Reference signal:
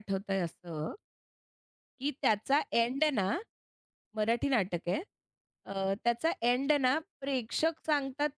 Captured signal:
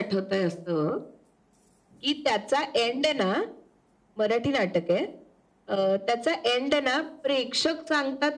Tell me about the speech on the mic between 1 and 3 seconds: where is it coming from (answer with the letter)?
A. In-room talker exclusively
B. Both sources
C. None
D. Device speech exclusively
D